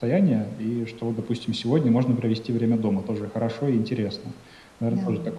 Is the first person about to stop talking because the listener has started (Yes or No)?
No